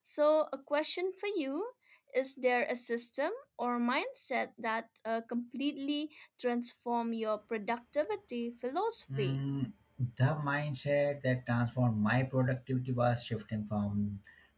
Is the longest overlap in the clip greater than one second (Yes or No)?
No